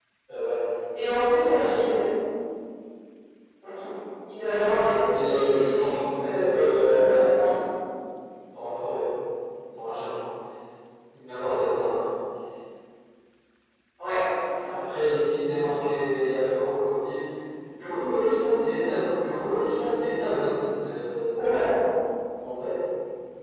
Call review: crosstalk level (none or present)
present